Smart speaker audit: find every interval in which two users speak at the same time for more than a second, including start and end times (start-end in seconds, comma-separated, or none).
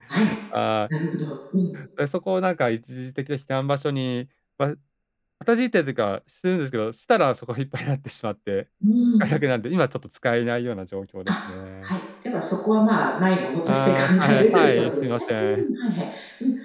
13.7-15.6